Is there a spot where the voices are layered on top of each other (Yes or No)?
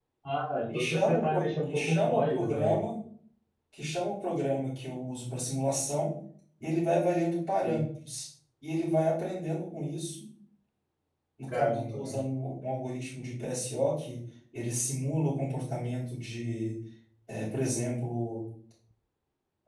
Yes